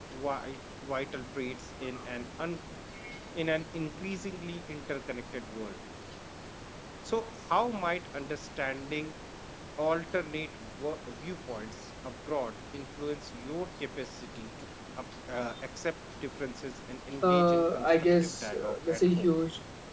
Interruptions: present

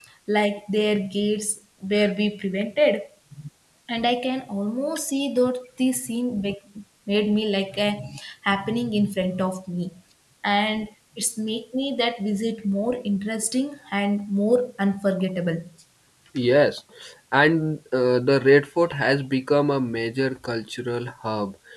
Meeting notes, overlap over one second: none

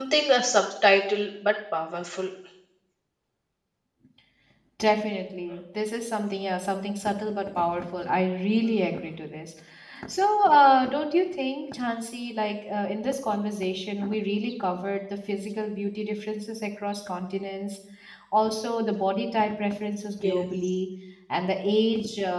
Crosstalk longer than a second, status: none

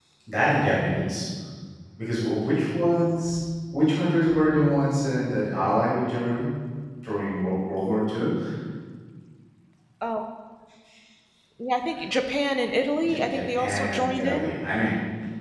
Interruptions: present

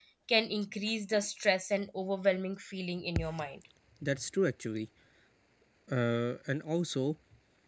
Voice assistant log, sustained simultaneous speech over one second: none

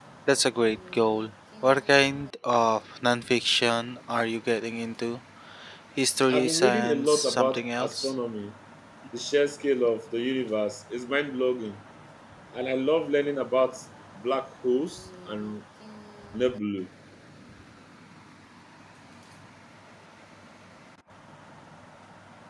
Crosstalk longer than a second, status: present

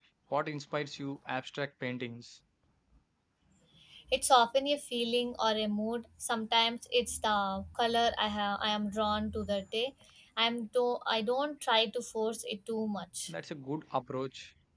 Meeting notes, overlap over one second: none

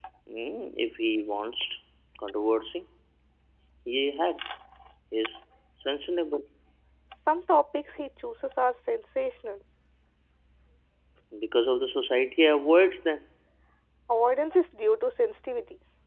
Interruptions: none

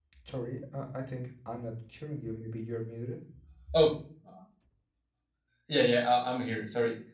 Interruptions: none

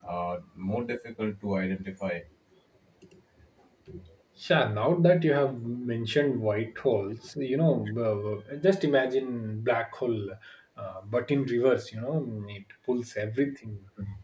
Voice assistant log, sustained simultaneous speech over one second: none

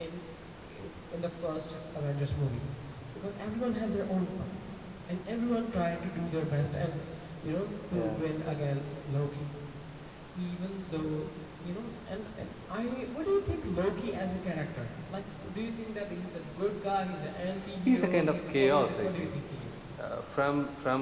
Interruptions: present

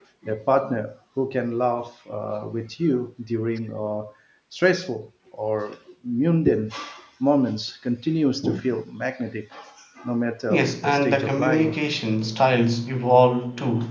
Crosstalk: present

